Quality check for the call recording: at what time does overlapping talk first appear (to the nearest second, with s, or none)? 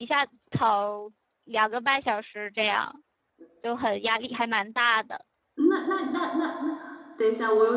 none